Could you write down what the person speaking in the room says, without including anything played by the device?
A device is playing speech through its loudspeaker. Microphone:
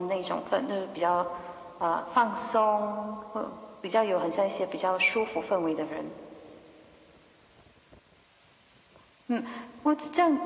none

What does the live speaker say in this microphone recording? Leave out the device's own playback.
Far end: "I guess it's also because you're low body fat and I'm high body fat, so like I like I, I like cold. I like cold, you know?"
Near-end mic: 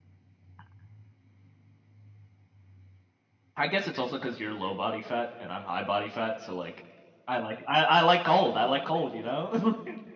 none

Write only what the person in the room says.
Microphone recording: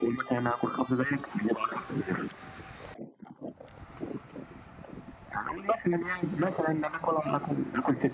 none

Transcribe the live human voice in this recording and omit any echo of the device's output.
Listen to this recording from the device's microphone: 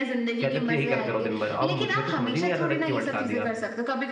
कहते थे यही करते रहो दिन भर अब मुझे तो समझ ही नहीं आता था क्यों अटका दिया

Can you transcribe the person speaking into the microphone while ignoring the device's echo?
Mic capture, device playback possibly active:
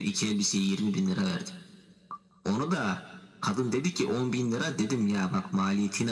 none

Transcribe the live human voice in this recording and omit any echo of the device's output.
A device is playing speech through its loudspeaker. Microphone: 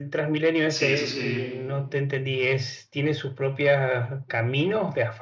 sí, eso sí,

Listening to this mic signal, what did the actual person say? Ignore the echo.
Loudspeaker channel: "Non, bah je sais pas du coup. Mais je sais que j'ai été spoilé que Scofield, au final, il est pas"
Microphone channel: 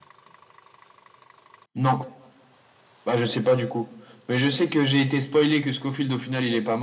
none

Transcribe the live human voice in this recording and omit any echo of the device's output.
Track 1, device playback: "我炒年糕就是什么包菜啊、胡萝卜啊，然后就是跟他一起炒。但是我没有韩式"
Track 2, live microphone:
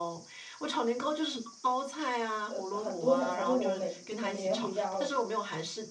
呃，很多小菜，就我每我每年回家，我

